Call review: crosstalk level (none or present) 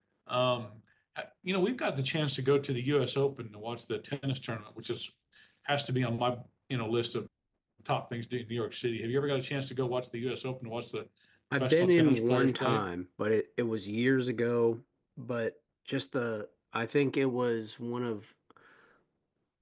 present